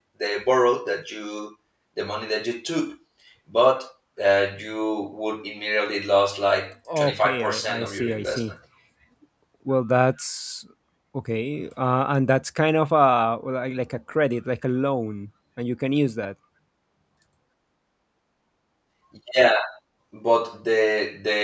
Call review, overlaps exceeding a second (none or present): present